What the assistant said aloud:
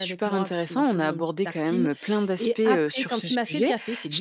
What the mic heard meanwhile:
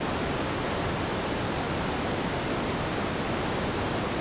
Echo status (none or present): none